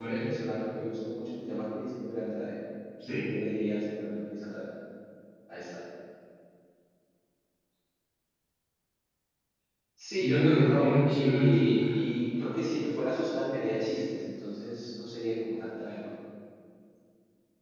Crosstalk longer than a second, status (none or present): present